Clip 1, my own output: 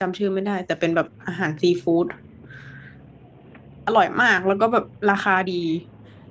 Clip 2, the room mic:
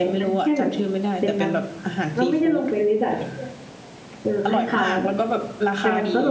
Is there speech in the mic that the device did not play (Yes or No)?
Yes